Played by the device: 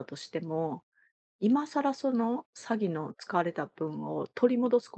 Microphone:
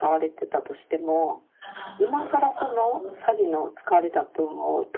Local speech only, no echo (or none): ああ。あ、あ、あ、あ、あ。